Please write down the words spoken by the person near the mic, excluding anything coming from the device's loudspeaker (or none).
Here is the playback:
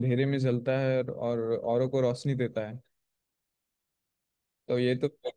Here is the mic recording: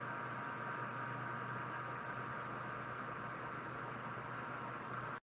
none